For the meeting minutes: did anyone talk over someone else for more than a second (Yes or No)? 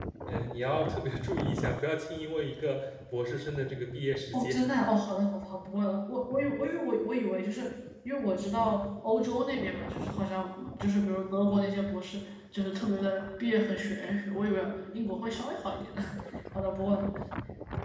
No